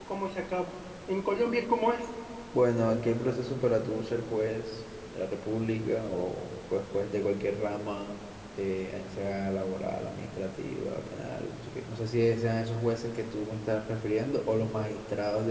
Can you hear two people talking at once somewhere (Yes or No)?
No